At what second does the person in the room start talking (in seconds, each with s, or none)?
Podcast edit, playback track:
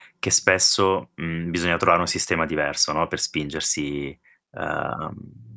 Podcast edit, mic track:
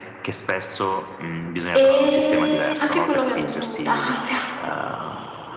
1.7 s